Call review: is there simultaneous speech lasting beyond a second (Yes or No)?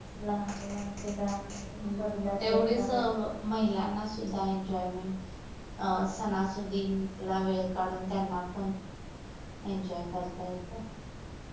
Yes